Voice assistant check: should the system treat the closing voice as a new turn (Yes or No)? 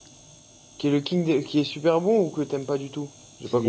Yes